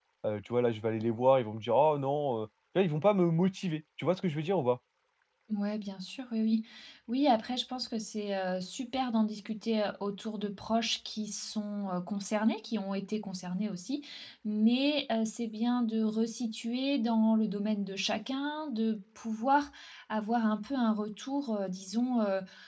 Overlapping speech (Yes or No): No